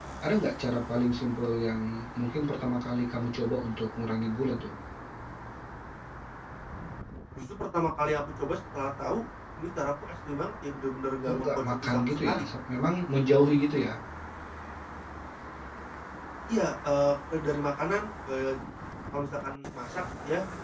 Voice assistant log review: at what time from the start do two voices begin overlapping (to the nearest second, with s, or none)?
11 s